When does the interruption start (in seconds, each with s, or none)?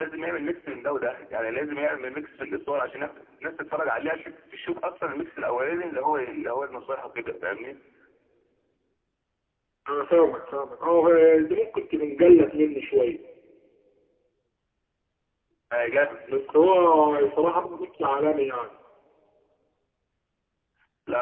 none